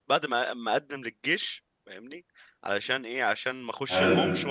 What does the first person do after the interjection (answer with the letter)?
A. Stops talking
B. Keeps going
B